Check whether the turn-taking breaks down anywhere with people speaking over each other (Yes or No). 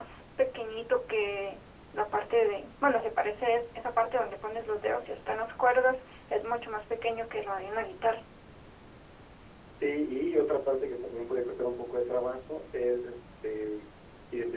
No